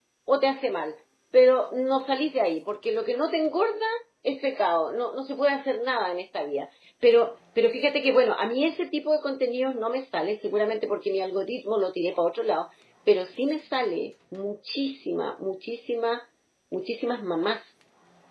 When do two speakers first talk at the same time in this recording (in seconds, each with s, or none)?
none